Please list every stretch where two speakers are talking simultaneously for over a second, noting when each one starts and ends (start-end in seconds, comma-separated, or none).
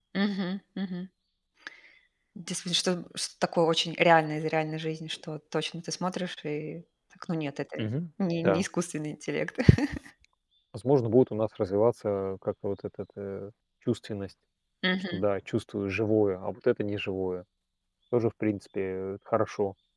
none